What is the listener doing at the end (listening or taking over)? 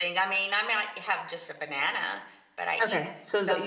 taking over